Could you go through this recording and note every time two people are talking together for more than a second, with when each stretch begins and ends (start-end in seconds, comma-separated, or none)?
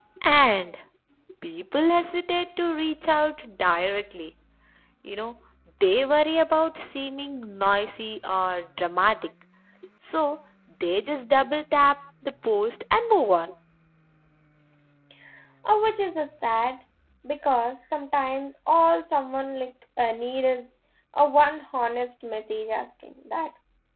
none